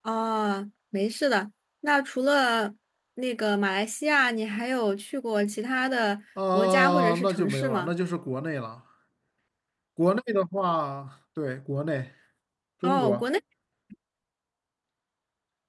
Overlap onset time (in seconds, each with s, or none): 6.5 s